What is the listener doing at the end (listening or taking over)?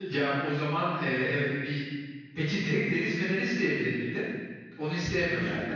taking over